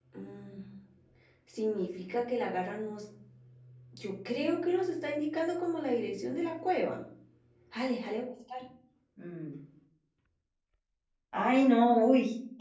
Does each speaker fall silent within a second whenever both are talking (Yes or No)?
Yes